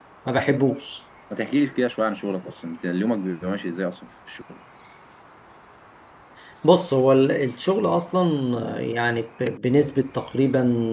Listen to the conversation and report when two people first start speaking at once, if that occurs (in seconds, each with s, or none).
none